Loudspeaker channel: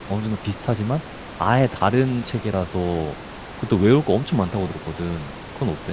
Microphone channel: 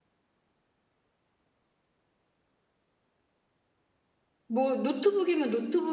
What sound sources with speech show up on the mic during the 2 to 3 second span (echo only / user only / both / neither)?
neither